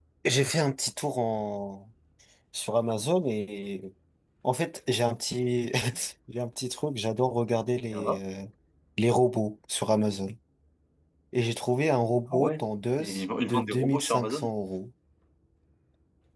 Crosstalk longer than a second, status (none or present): present